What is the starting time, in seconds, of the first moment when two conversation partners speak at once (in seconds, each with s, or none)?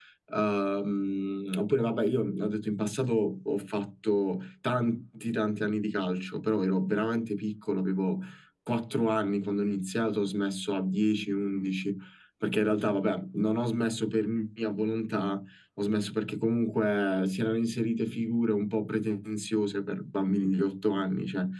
none